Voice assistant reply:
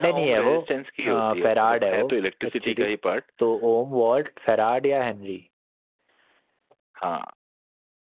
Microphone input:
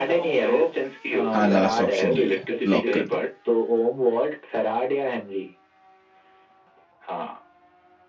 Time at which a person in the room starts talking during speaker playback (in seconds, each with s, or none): 1.3 s